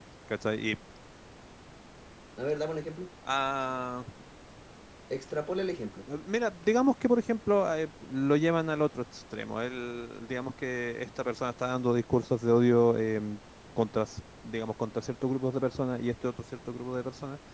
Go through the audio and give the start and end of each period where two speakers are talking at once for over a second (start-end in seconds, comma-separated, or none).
none